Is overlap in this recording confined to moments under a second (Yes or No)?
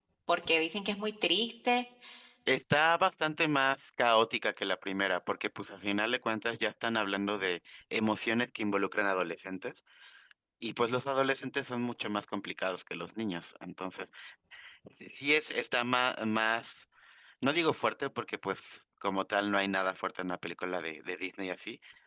Yes